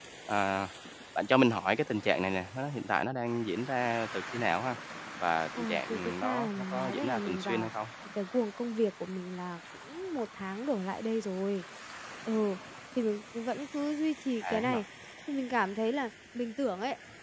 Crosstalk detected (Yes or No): Yes